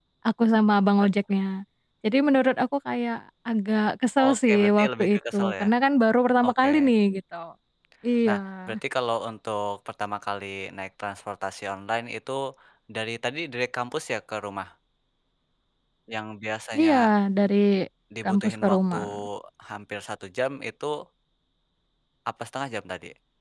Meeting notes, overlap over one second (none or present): present